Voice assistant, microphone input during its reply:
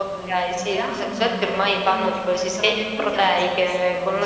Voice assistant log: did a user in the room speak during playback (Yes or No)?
Yes